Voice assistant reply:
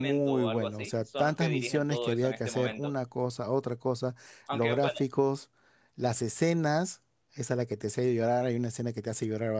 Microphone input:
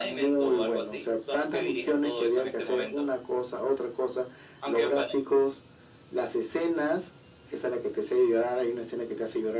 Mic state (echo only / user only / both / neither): echo only